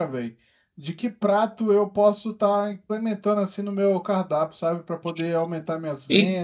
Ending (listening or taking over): taking over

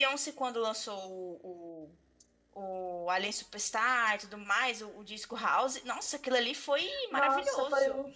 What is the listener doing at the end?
taking over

